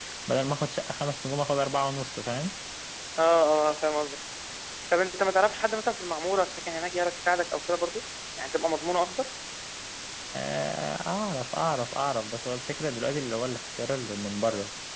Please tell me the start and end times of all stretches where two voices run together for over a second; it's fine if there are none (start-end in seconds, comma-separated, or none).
none